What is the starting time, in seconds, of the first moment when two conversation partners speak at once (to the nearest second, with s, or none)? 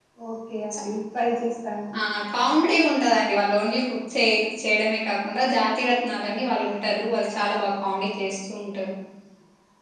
none